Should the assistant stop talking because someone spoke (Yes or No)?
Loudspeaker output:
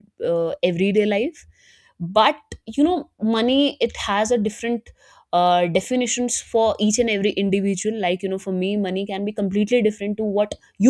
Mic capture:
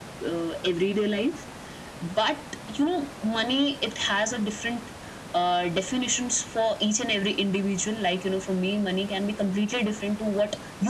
No